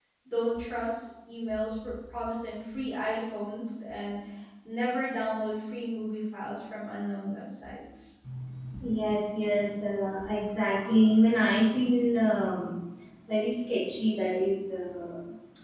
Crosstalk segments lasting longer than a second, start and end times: none

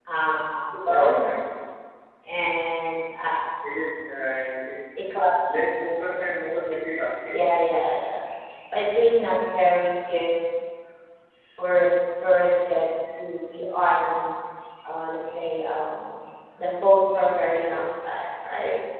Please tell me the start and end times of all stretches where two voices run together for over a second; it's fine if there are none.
none

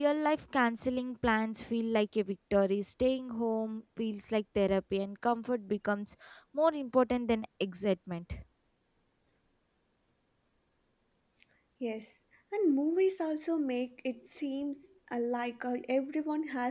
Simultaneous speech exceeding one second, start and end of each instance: none

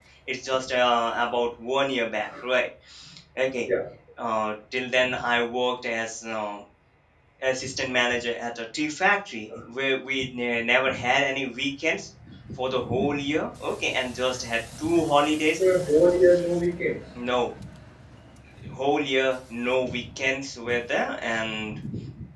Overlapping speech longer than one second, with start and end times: none

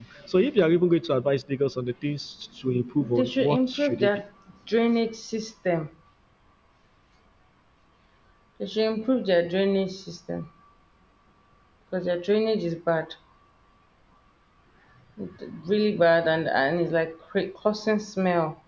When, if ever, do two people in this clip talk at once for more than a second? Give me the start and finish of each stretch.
3.0-4.2

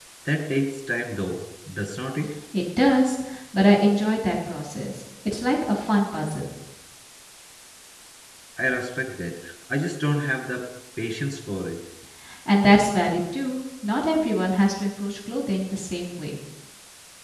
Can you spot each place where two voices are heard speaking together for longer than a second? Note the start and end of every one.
none

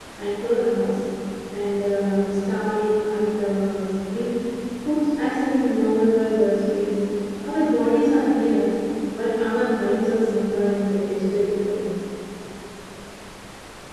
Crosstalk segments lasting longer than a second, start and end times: none

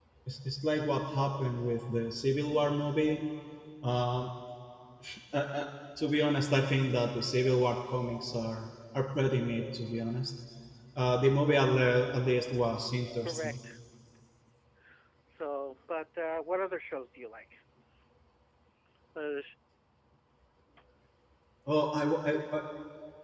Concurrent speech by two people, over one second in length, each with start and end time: none

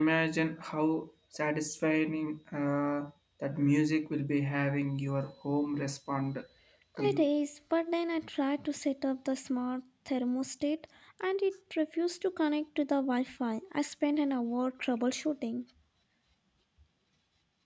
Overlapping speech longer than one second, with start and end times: none

